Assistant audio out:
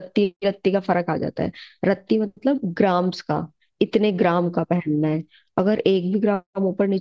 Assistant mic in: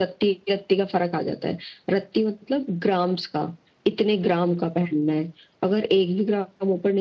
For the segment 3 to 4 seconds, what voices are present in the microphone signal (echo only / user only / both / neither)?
echo only